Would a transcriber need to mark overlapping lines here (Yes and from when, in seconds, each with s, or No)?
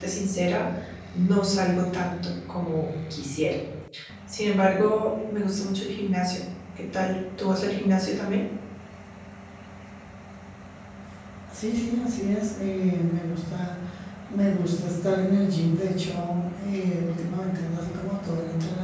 No